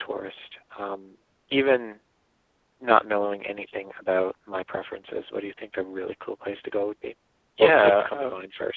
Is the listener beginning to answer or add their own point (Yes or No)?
Yes